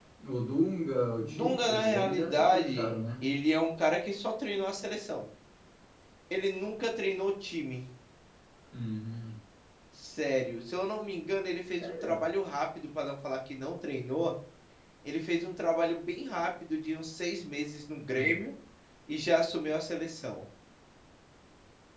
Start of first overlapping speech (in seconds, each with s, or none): 1.2 s